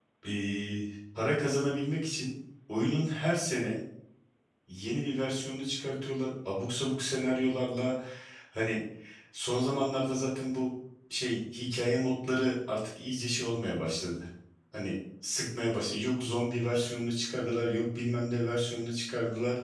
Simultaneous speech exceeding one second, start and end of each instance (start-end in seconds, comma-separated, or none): none